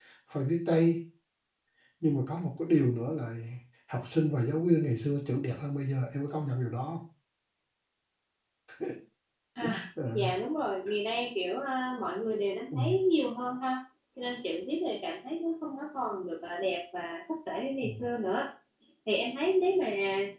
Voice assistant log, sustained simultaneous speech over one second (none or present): none